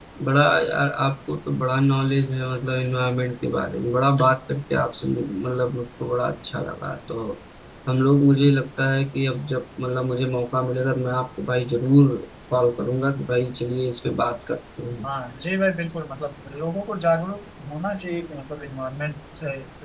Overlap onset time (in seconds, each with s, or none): none